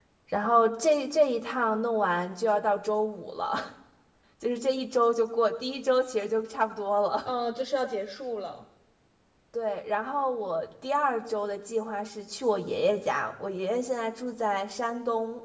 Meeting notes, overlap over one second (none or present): none